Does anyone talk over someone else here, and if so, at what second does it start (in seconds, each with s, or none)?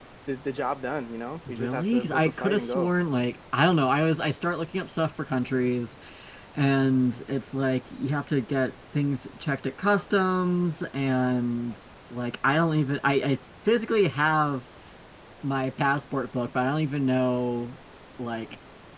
1.5 s